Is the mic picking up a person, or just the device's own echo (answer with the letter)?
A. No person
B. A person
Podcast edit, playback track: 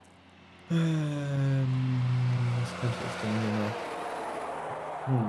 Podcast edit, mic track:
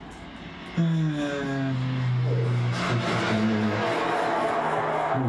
B